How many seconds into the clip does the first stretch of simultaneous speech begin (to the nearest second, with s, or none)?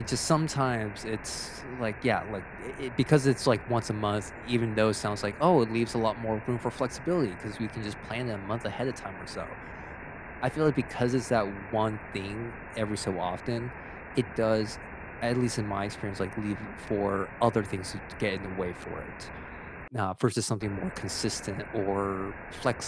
none